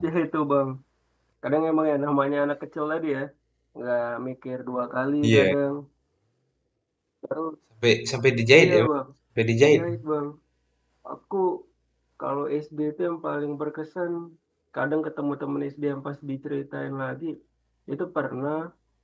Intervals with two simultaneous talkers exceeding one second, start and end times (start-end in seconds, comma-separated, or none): none